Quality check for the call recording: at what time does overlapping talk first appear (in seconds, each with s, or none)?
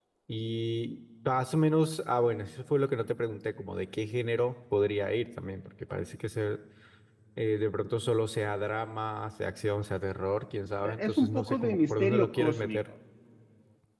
10.8 s